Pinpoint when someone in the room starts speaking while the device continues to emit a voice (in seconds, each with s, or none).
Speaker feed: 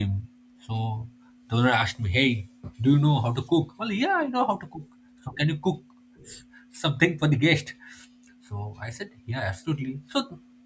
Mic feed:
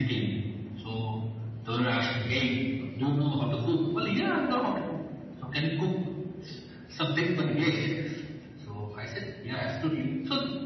none